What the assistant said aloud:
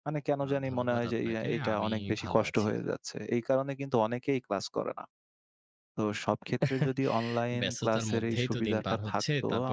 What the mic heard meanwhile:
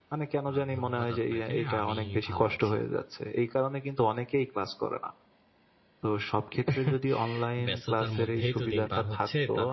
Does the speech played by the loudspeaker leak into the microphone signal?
Yes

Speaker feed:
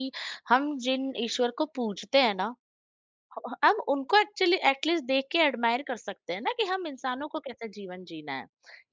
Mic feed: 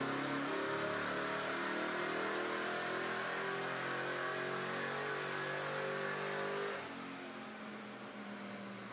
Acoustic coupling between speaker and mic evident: No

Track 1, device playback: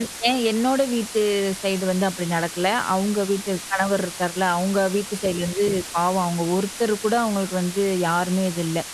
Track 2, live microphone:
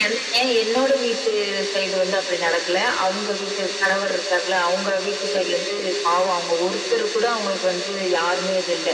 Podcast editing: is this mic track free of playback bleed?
No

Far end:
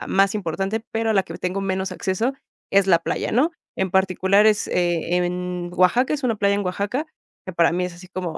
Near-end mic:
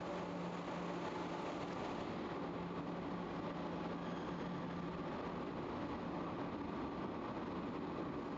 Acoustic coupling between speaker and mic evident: No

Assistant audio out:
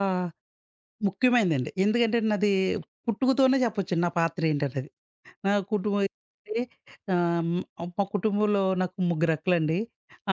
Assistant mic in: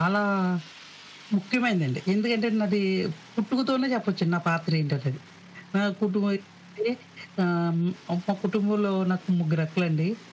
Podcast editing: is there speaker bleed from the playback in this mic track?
Yes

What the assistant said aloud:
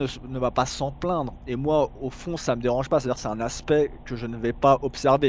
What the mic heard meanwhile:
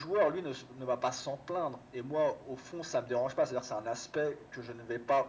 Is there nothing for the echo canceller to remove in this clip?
No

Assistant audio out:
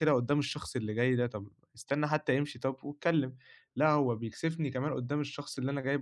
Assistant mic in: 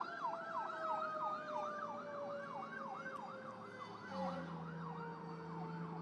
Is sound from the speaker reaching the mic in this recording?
No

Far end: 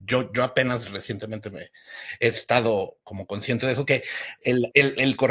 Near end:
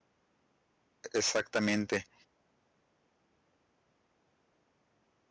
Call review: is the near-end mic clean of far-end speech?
Yes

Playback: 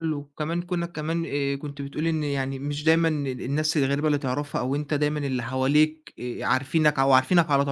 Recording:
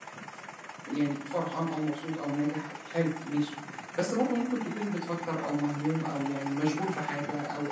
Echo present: No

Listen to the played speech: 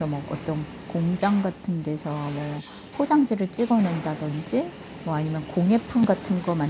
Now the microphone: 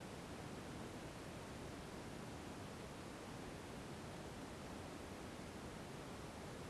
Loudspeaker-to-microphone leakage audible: No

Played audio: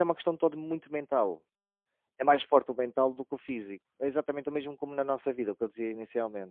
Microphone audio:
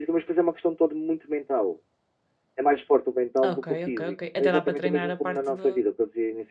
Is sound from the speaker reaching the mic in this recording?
Yes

